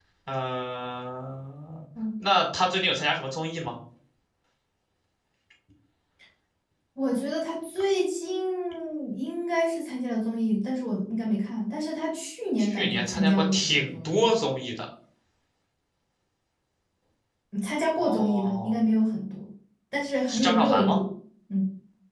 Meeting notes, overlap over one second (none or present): present